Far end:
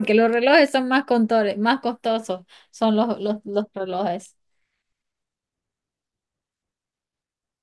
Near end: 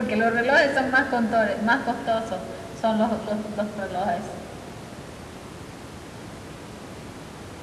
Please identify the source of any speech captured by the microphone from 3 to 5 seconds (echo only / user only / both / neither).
echo only